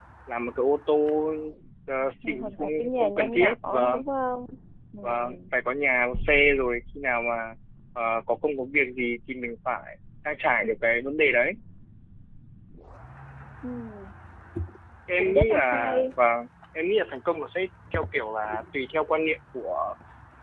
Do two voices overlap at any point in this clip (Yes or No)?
Yes